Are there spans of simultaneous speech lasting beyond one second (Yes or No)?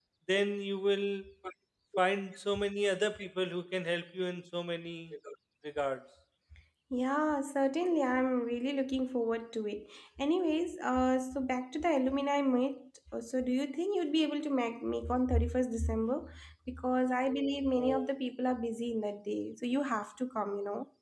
No